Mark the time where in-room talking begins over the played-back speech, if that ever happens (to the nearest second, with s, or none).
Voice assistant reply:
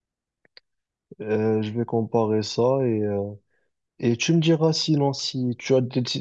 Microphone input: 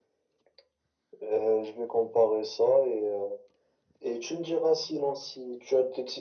none